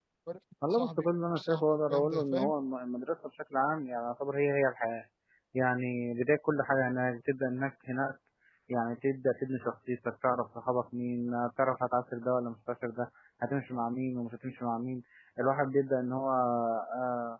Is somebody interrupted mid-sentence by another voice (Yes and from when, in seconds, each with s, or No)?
Yes, from 0.7 s